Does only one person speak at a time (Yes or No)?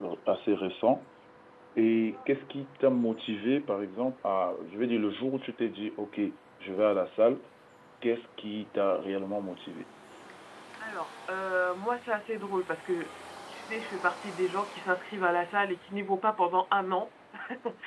Yes